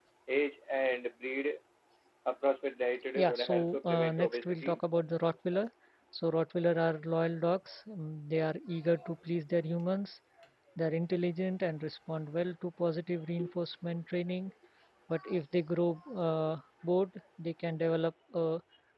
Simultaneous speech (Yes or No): Yes